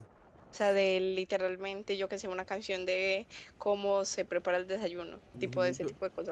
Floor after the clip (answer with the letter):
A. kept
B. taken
B